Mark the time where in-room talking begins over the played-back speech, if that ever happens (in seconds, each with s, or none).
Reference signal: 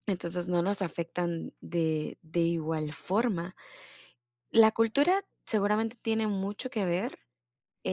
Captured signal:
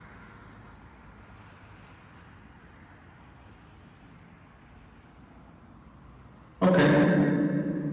6.6 s